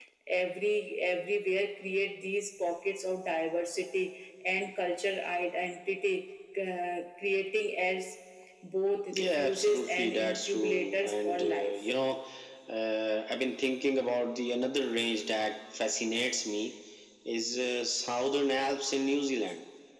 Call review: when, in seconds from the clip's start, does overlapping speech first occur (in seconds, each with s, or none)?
9.2 s